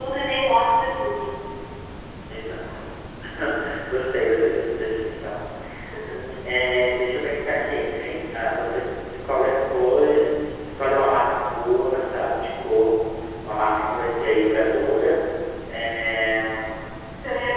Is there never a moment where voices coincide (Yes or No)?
Yes